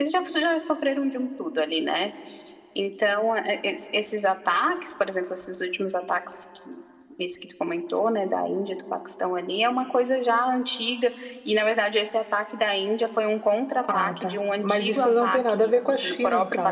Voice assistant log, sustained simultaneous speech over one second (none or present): present